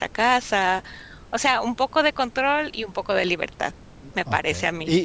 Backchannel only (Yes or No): No